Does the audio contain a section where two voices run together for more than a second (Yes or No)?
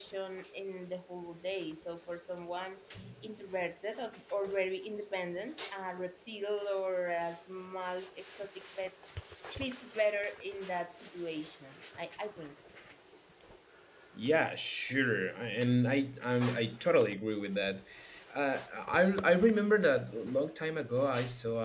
No